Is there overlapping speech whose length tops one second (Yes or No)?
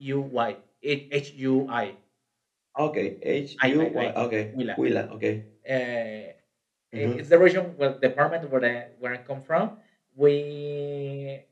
No